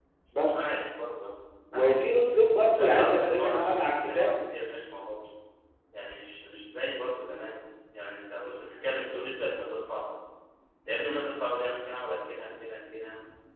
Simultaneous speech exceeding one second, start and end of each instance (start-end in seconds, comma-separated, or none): 2.7-4.3